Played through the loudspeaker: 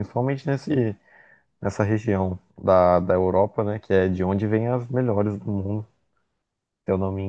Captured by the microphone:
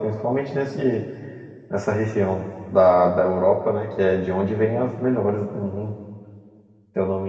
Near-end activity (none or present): none